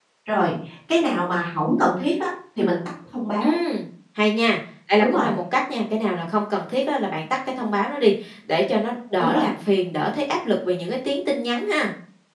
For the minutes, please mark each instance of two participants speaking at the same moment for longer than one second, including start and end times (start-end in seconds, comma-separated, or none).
none